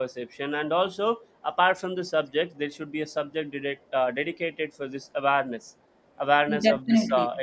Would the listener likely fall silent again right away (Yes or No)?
Yes